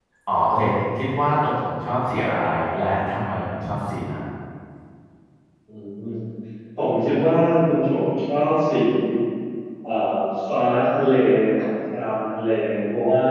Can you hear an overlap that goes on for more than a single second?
No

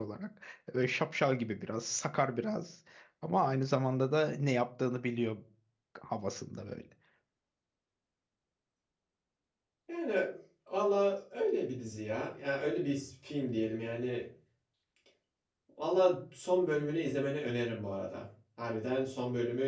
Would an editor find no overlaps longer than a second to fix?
Yes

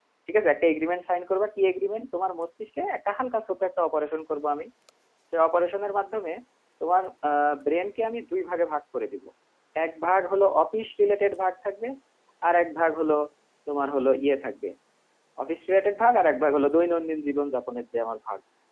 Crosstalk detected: No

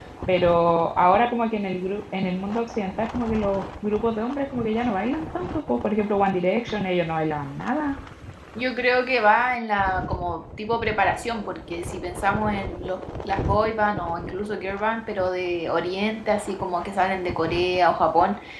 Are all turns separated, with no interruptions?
Yes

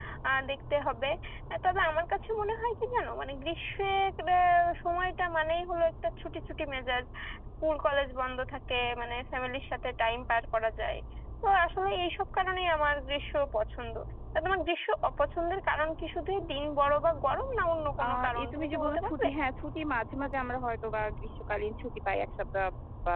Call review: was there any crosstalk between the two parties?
Yes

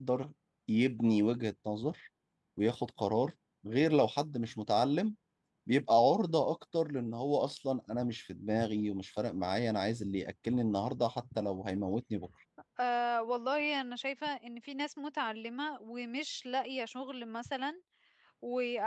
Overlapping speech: No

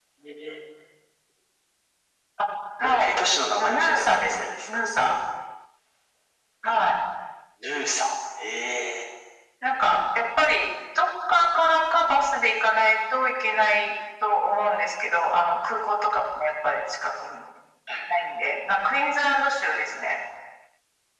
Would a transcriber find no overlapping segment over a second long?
No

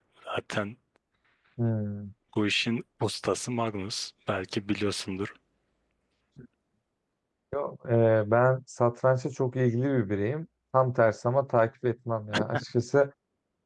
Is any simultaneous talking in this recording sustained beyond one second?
No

